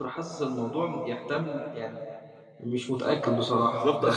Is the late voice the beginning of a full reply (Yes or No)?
Yes